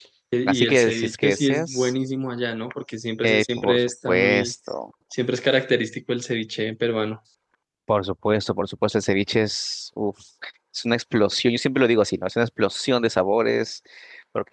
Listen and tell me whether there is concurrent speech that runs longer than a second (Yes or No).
Yes